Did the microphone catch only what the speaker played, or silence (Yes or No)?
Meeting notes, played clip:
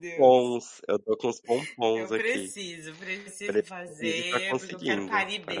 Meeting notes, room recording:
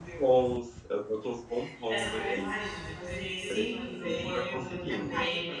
No